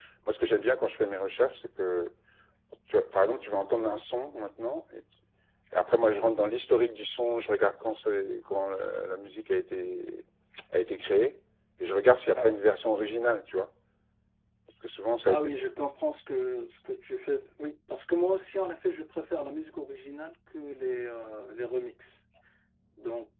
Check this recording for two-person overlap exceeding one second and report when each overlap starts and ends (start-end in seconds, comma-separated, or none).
none